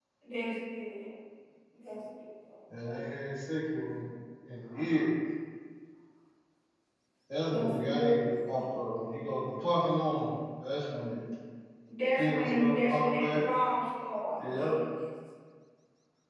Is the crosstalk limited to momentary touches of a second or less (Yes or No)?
No